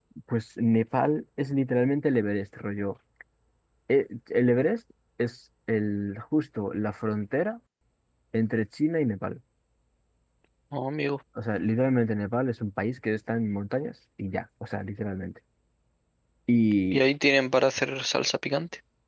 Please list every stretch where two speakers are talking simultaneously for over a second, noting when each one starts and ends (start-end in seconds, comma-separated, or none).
none